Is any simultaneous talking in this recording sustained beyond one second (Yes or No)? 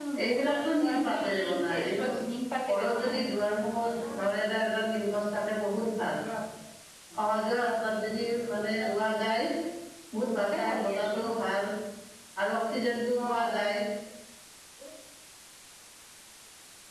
Yes